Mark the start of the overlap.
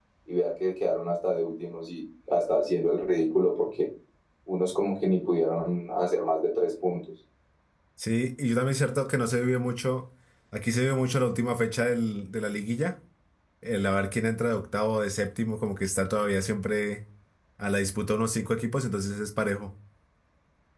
none

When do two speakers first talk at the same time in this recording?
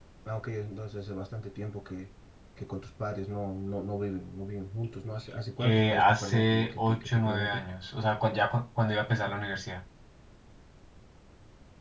6 s

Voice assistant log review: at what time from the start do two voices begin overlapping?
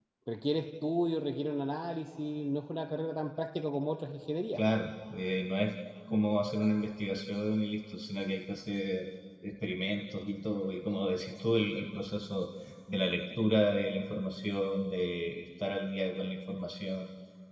none

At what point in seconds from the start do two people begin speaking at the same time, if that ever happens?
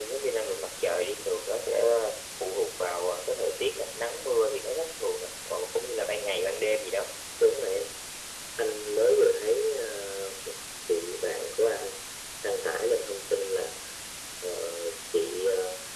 none

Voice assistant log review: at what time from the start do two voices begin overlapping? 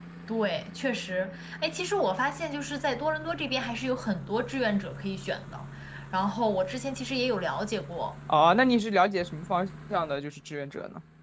none

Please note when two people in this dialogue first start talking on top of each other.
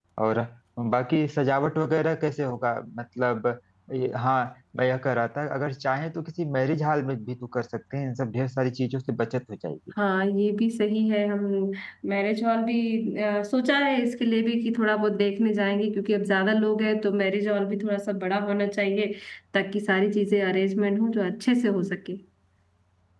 none

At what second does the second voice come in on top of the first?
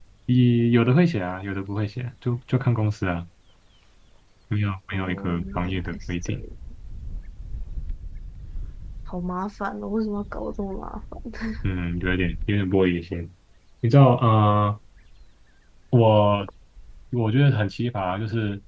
5 s

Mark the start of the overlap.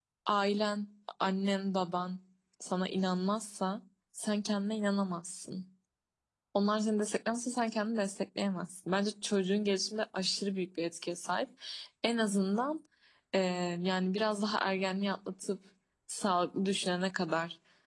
none

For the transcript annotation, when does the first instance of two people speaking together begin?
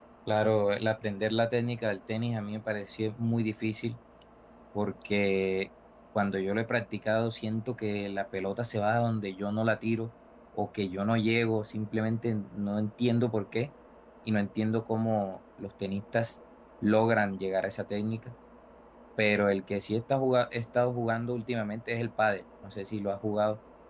none

